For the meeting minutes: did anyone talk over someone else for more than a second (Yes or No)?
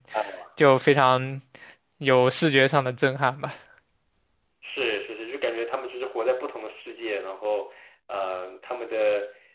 No